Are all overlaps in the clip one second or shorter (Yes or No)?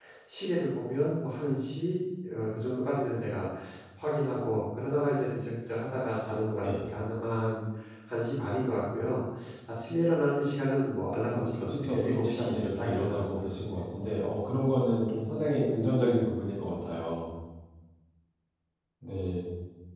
No